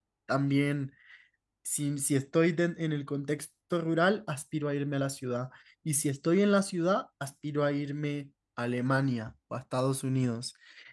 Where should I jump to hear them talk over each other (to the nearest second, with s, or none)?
none